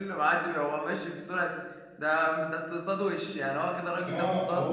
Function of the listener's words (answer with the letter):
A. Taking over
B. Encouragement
A